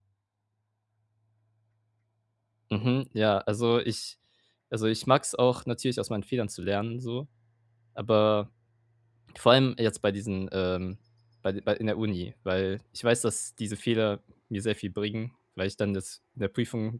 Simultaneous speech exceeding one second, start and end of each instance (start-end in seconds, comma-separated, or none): none